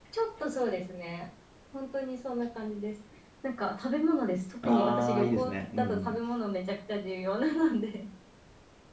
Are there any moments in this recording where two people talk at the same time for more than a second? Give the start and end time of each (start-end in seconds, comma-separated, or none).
4.6-6.2